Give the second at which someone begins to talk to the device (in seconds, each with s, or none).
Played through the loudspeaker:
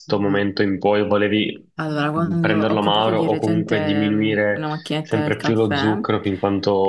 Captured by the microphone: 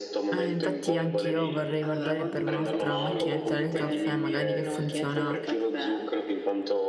0.3 s